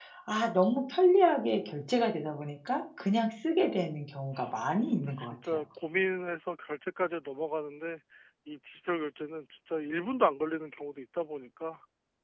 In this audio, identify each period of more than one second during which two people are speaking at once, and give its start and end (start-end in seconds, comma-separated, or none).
4.4-5.6